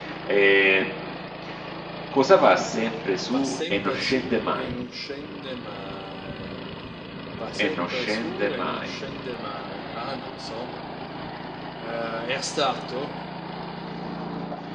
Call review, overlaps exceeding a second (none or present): present